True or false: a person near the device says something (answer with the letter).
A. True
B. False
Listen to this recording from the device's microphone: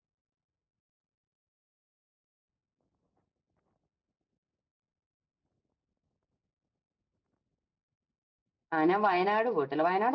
A